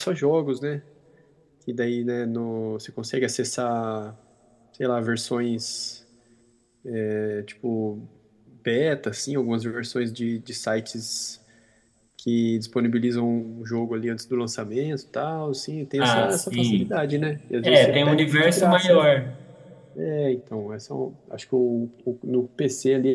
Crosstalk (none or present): present